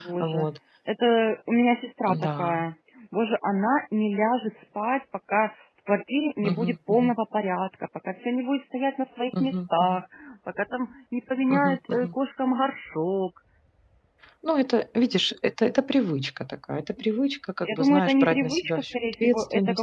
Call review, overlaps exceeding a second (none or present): present